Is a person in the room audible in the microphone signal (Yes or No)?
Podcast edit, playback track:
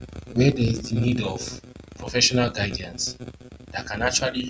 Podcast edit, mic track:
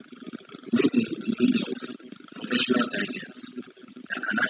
No